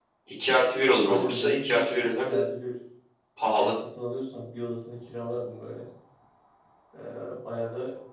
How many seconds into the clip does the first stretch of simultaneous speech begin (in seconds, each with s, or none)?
1.0 s